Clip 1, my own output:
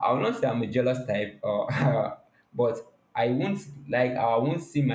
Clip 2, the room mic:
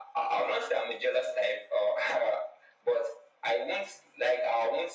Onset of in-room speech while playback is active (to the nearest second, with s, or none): none